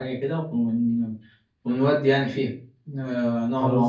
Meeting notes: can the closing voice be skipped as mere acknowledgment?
No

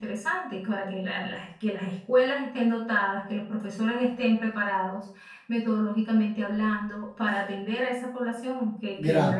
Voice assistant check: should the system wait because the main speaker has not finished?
No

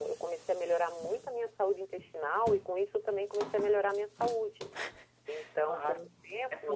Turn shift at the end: Yes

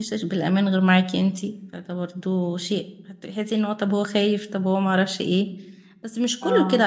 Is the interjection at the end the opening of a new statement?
No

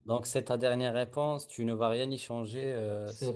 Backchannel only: No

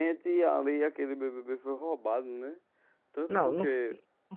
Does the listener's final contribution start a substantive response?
Yes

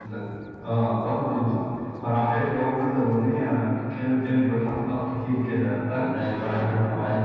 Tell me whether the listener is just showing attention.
No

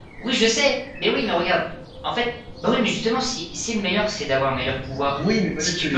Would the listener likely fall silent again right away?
No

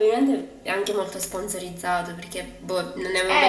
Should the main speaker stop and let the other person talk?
Yes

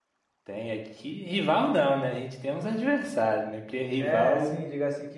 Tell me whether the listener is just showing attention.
No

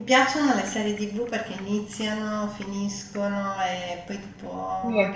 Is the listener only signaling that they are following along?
Yes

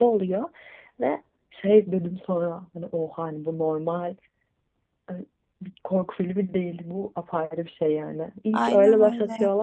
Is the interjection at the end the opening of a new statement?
No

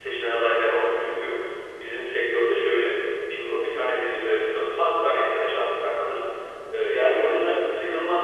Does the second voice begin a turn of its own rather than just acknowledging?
No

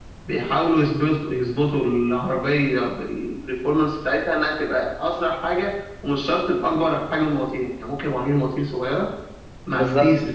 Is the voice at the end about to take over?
No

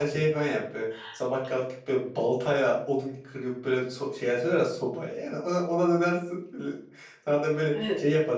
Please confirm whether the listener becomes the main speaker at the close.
No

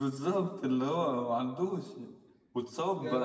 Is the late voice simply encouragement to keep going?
Yes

